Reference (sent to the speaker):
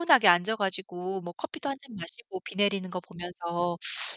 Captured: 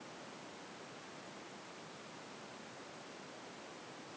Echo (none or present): none